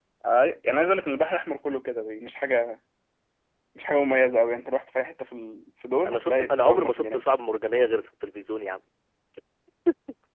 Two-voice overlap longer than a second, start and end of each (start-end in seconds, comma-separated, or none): 6.1-7.3